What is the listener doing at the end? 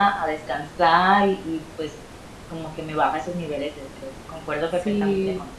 taking over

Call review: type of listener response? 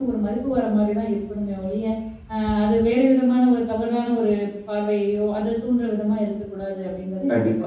taking over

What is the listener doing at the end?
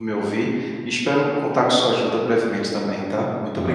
taking over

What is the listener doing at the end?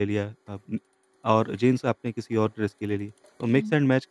listening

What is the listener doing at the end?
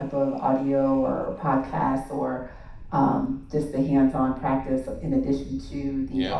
listening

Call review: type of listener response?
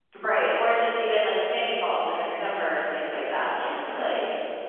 taking over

